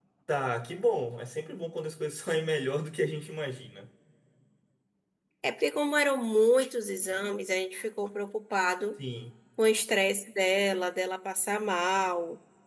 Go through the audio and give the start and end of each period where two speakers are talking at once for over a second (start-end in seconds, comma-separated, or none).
none